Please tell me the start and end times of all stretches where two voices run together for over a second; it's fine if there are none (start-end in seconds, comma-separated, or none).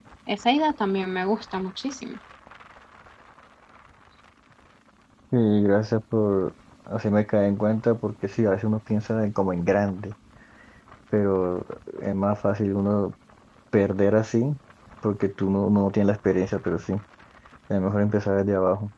none